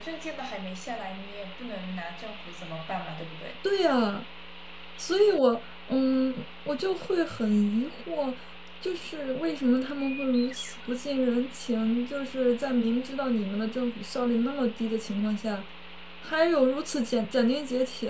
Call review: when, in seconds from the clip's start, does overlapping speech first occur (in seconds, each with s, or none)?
none